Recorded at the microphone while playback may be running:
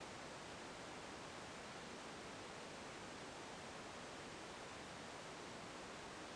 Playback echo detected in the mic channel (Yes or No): No